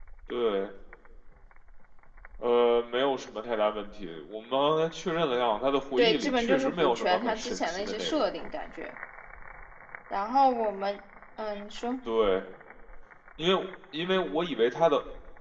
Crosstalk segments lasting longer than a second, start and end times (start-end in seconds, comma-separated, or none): 6.0-8.3